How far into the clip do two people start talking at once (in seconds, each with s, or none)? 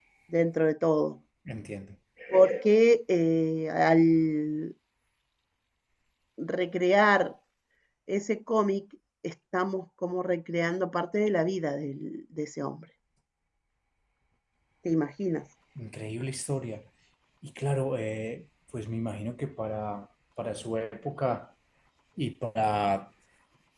none